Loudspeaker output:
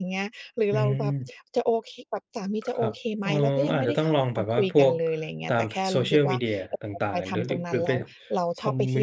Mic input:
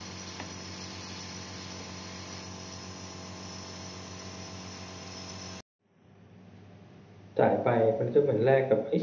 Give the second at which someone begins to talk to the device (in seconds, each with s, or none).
7.4 s